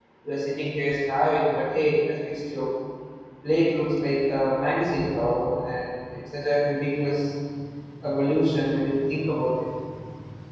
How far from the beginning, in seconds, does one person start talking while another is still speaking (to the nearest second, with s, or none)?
none